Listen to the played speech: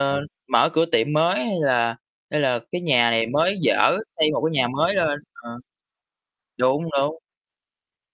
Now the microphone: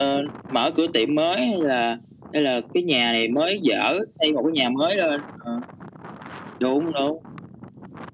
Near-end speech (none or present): none